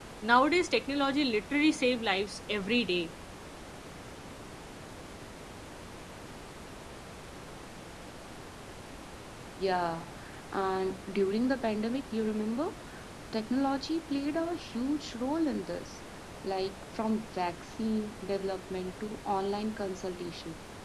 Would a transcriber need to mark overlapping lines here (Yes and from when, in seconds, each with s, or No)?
No